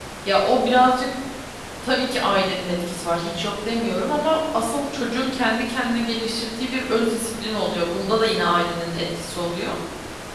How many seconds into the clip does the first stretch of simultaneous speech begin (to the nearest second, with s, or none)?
none